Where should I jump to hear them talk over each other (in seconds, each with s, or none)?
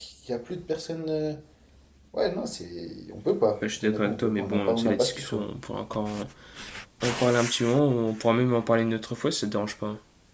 3.6 s